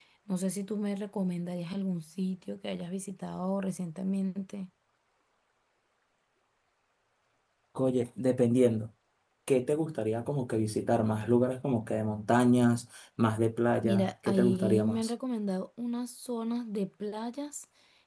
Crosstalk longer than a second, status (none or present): present